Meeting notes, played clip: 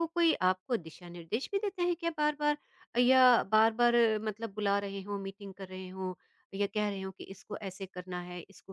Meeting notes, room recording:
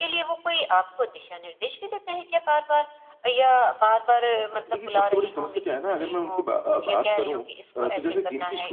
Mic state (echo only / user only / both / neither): both